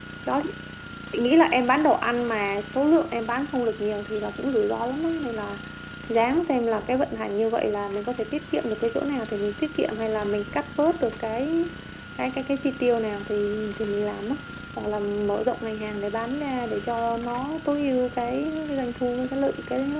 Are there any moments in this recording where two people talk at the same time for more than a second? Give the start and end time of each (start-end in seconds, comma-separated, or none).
none